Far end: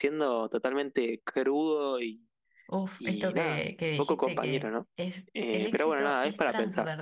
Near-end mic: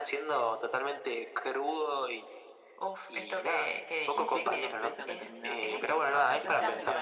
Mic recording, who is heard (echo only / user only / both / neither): both